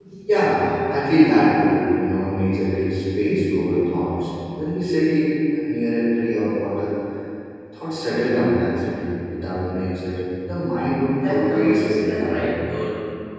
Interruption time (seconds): 11 s

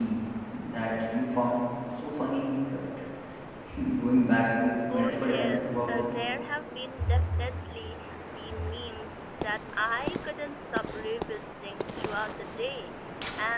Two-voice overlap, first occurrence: 5 s

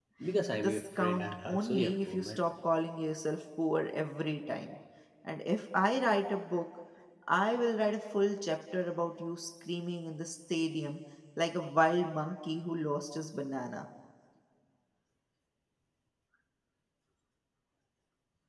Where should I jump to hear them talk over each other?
1 s

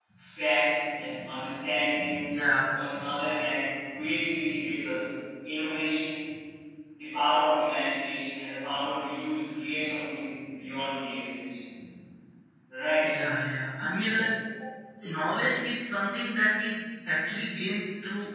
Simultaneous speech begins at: none

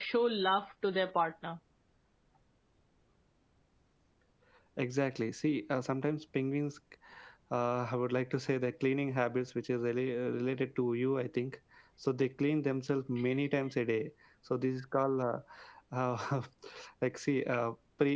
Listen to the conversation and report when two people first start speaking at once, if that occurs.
none

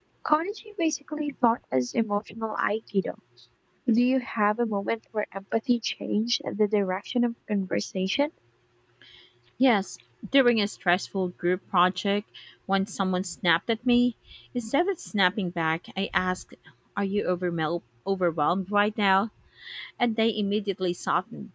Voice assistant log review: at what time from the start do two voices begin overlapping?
none

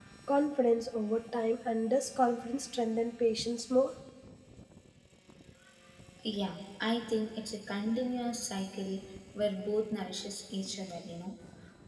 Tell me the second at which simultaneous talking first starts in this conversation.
none

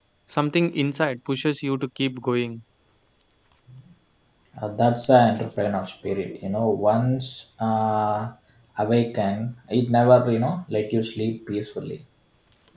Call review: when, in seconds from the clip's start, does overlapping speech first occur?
none

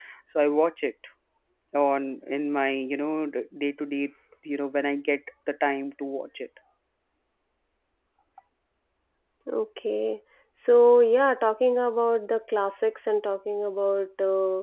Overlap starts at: none

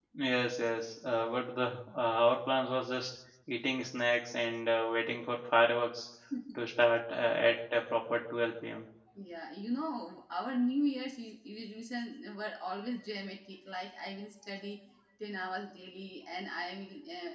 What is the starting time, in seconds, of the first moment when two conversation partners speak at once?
none

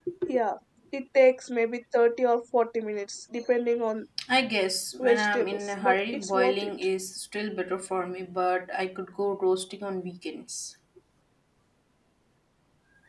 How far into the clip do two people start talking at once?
5 s

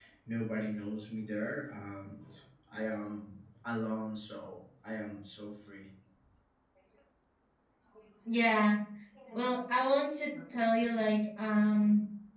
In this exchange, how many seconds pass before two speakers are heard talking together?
none

